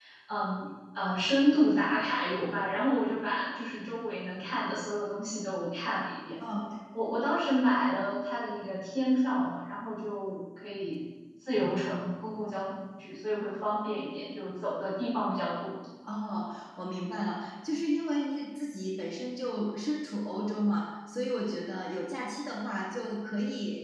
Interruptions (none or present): none